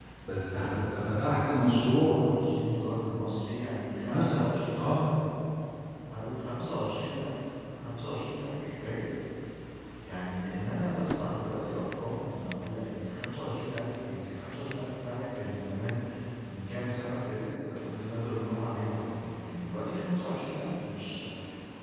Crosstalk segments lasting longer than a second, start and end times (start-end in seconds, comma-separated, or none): none